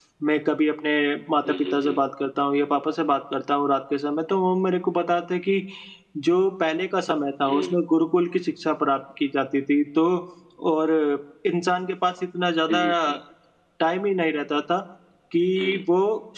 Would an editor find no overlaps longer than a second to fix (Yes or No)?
Yes